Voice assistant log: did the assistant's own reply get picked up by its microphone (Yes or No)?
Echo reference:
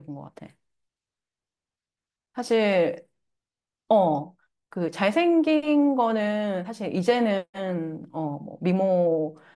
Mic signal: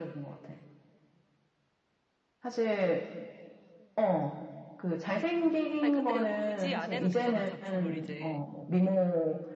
Yes